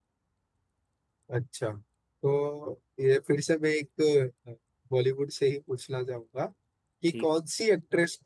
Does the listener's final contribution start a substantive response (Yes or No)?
No